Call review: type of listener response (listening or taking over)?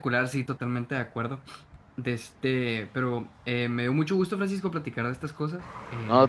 listening